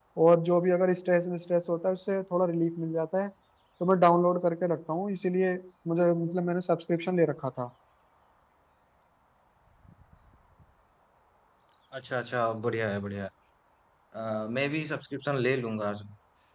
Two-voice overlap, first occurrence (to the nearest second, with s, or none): none